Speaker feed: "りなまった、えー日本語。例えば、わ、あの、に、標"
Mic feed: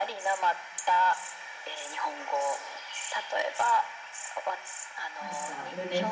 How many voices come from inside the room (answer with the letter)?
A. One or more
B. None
A